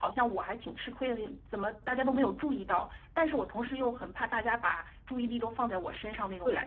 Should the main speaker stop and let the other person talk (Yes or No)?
Yes